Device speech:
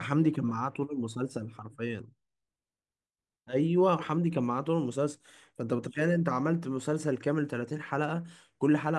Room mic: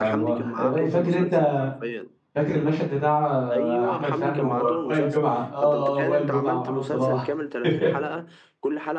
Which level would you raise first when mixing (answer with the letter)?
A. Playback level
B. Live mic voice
A